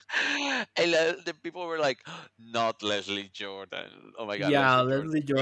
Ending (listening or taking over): taking over